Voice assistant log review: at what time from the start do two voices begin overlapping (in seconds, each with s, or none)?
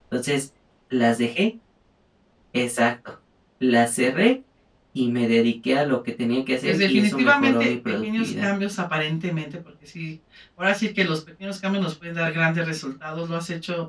6.6 s